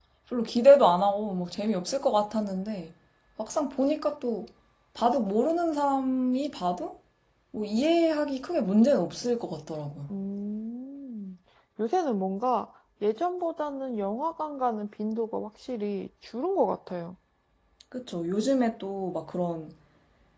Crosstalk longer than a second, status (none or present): none